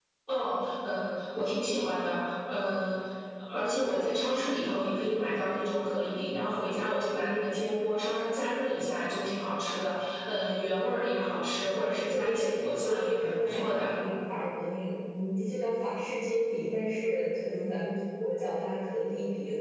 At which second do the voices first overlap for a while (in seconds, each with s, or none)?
12.1 s